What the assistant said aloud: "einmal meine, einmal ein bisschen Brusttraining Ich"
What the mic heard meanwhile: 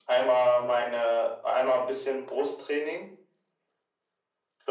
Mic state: echo only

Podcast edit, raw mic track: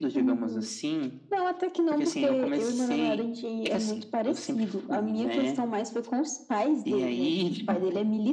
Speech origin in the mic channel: echo only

